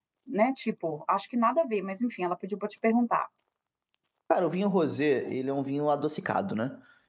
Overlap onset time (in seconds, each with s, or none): none